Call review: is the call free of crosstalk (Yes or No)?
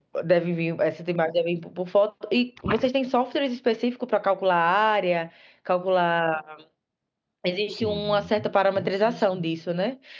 No